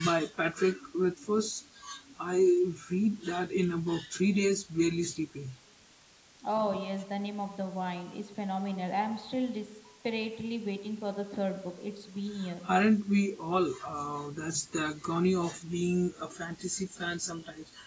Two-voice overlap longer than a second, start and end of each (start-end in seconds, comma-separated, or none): none